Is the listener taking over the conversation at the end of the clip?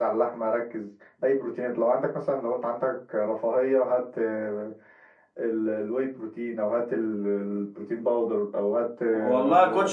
Yes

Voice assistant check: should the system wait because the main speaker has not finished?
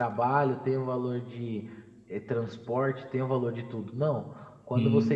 Yes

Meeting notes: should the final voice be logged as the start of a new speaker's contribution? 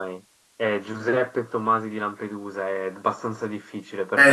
Yes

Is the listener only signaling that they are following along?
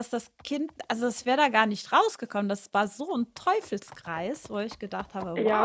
No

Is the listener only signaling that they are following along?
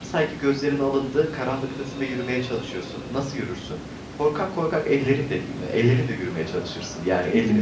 Yes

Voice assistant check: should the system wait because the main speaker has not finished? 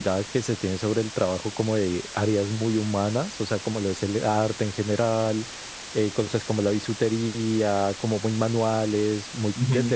Yes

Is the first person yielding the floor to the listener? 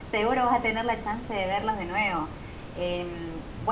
No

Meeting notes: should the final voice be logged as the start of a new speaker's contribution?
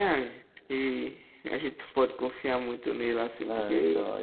Yes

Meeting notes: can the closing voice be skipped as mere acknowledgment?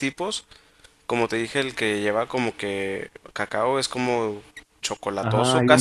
No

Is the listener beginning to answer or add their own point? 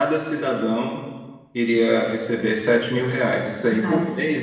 No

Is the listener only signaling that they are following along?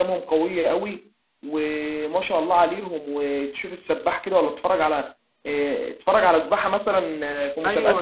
No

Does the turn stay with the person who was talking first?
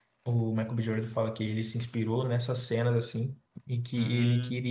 Yes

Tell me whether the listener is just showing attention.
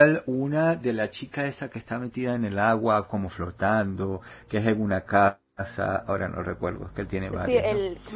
No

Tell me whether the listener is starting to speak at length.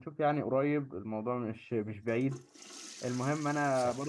No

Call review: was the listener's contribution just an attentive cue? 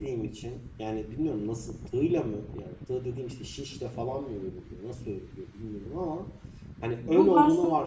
No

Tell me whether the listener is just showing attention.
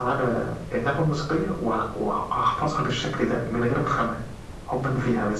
No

